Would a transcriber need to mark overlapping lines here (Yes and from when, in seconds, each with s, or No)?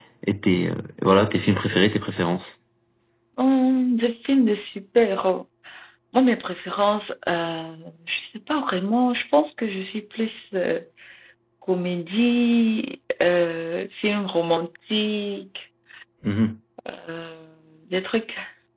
No